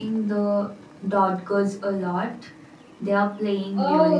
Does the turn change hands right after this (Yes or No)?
Yes